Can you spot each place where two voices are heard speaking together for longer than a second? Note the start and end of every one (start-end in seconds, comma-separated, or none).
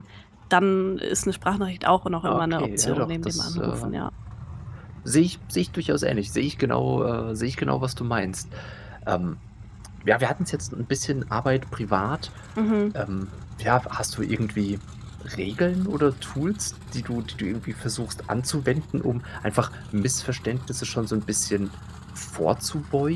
2.2-3.9